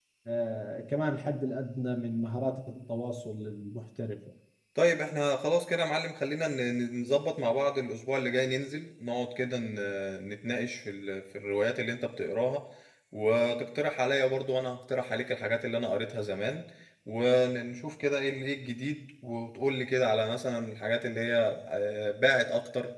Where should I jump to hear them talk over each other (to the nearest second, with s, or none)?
none